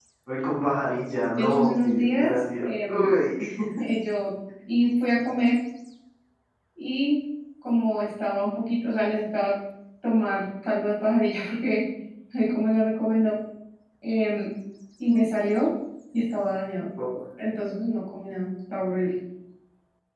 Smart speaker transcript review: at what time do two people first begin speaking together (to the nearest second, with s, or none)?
1 s